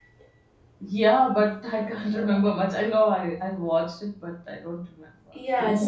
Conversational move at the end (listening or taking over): taking over